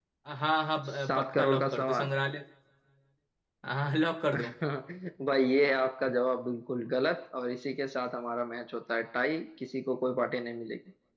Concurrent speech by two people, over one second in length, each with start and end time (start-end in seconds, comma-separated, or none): 0.9-2.1